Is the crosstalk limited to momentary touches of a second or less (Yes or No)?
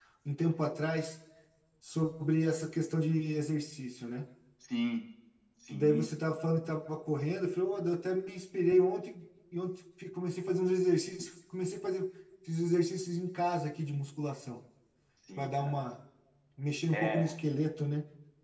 Yes